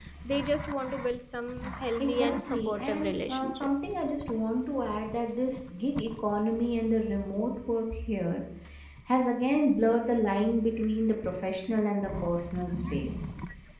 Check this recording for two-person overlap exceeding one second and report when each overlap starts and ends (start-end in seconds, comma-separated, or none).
2.0-3.7